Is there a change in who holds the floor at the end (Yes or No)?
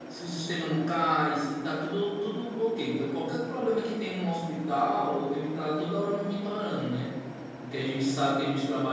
No